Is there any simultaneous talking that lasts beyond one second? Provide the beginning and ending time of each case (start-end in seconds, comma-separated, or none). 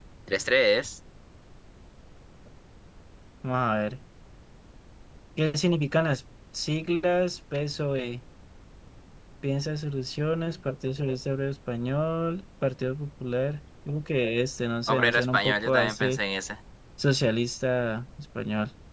14.9-16.2